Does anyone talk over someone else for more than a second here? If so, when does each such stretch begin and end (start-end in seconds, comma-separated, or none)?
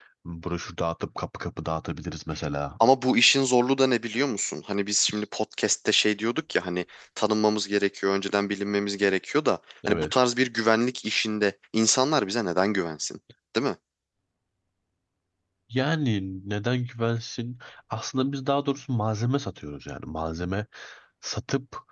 none